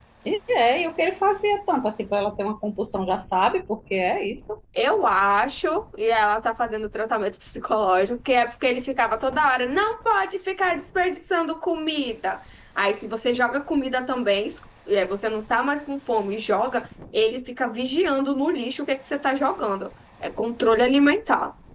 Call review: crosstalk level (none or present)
none